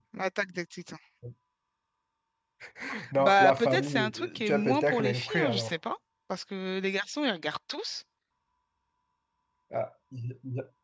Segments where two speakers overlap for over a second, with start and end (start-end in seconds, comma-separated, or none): 3.2-5.7